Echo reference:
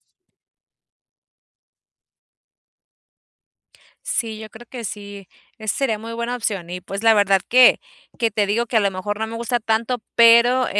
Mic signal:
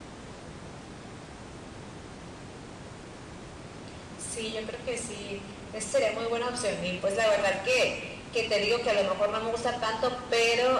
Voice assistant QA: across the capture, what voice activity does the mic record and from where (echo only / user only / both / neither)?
echo only